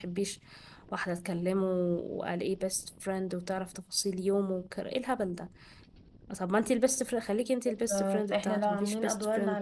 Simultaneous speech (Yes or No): Yes